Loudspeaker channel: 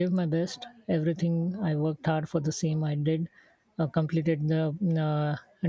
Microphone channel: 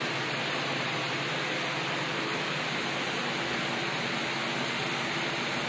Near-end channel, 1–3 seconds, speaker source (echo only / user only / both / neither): neither